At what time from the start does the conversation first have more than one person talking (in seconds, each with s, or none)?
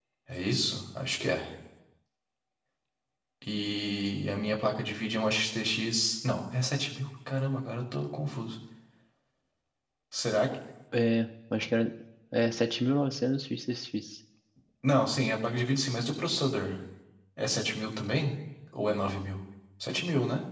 none